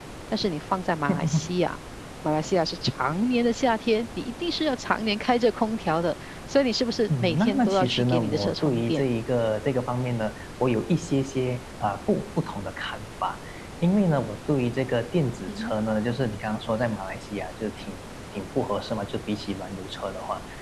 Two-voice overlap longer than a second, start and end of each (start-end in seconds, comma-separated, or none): 7.2-9.1